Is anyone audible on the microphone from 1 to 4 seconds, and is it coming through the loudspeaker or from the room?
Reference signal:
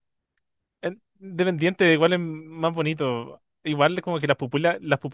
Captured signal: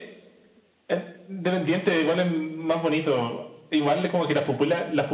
echo only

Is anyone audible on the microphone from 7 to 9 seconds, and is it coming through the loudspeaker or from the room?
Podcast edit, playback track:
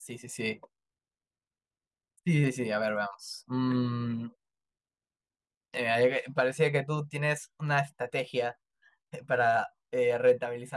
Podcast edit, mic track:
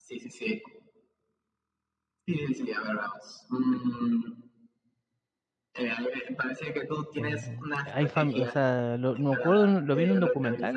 both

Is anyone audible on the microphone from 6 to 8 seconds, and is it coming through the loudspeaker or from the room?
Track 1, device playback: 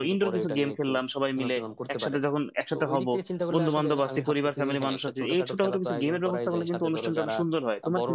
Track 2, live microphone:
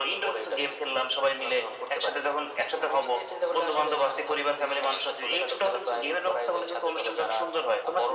echo only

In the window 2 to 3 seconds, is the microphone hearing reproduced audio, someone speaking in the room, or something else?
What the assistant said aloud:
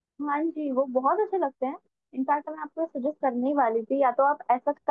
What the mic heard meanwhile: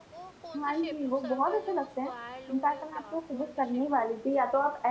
both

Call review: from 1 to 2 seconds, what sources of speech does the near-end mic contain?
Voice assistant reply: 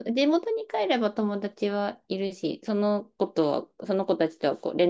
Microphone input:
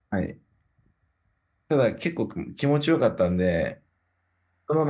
user only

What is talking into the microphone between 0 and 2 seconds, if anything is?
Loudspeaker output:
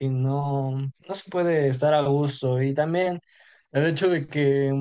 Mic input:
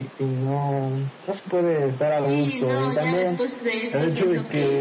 echo only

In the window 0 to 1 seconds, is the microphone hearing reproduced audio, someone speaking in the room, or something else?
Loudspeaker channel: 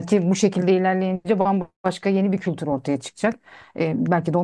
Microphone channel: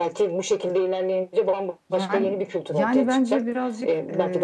echo only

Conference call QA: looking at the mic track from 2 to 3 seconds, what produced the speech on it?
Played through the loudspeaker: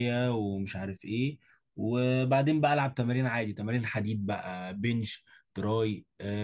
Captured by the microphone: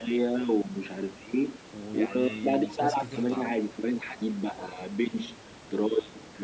both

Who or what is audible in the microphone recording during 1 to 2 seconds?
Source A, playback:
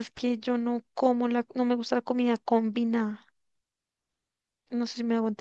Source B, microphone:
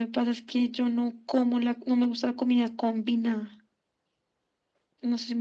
echo only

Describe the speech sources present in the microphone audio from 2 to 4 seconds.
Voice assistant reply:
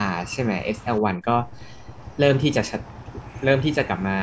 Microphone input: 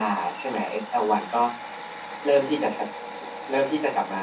echo only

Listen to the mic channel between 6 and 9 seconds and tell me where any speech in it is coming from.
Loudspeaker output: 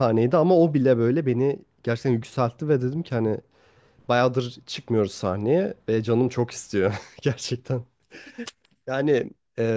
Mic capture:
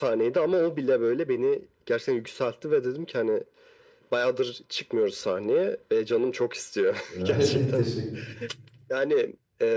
both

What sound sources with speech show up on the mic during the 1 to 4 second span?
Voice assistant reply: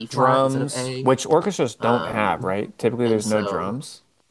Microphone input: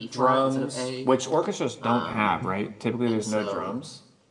echo only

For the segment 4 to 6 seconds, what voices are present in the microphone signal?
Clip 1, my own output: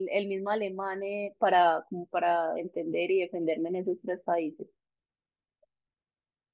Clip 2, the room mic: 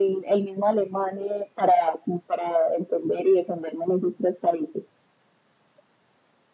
echo only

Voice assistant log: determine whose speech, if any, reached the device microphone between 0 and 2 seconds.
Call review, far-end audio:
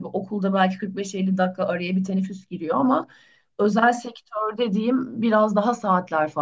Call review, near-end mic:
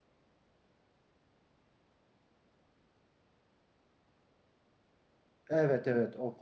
neither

